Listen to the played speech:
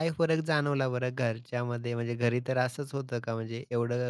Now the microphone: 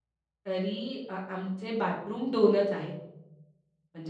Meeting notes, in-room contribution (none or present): present